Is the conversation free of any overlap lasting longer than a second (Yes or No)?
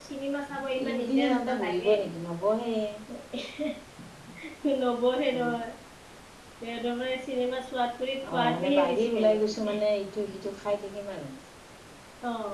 No